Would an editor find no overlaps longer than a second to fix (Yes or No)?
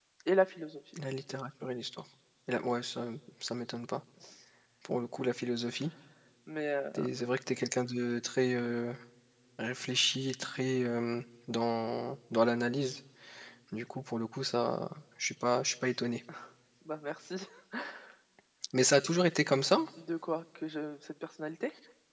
Yes